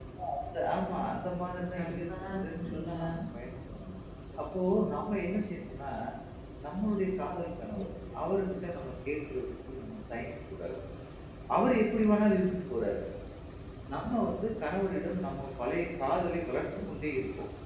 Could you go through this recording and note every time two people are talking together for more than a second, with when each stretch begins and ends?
1.8-3.1

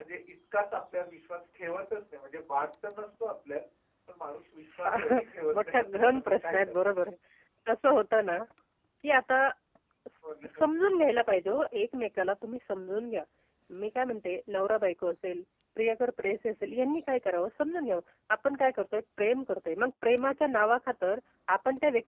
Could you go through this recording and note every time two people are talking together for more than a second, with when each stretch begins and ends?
5.5-6.9

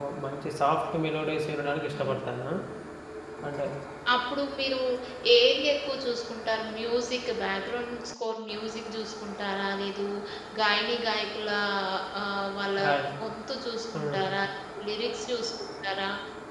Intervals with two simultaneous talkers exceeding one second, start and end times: none

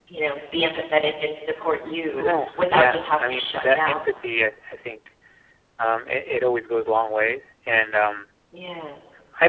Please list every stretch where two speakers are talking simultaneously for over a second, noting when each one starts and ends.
2.2-4.0

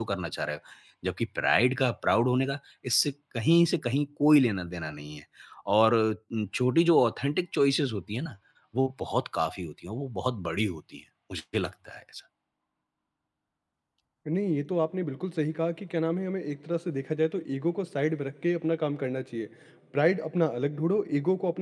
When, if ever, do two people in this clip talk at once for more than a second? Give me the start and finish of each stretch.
none

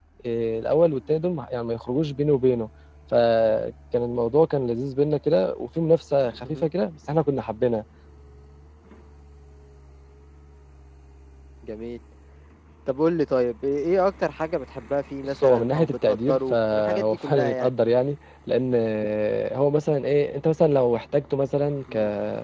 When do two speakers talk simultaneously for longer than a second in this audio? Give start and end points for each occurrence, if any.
15.4-17.7

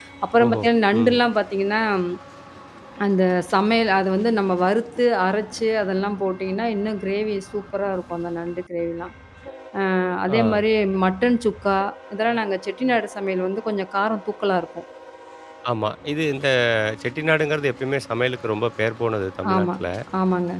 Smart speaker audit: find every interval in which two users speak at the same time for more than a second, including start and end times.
none

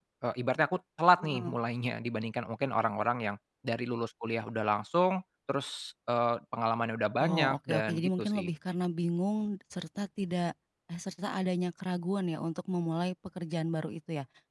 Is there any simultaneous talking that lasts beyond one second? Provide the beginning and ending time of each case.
7.2-8.5

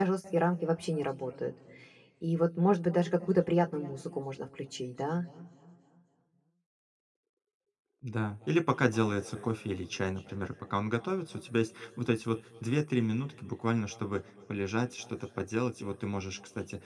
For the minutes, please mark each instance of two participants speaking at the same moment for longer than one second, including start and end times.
none

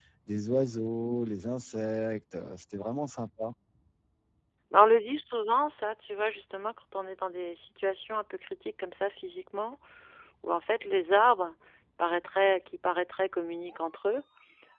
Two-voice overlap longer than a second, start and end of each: none

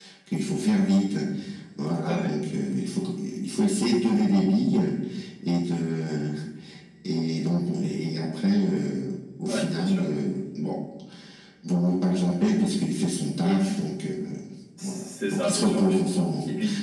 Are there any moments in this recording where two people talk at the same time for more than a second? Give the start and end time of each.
14.8-16.2

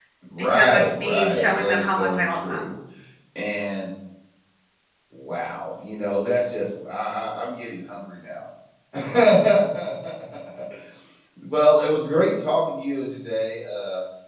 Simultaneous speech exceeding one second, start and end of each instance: 0.5-2.6

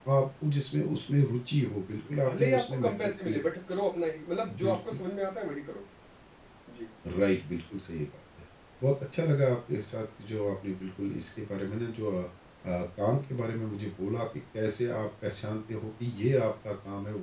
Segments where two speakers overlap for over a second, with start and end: 2.2-3.4

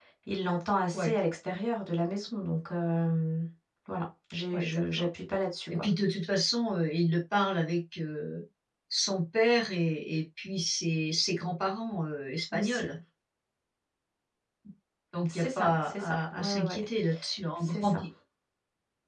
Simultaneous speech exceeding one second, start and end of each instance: 15.3-16.9

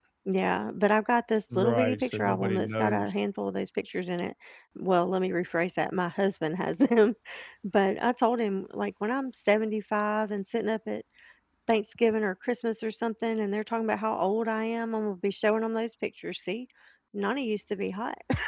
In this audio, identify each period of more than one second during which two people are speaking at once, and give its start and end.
1.6-3.1

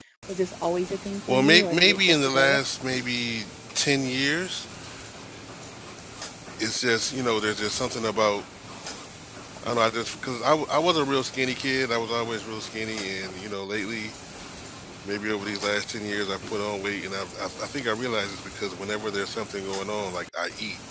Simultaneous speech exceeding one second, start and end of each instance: 1.3-2.6

